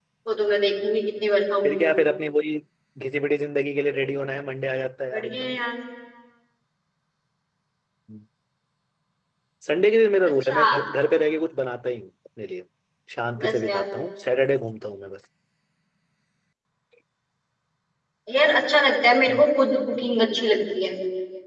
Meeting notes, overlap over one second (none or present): none